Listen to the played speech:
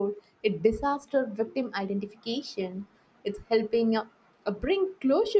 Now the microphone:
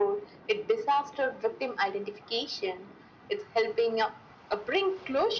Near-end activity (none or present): none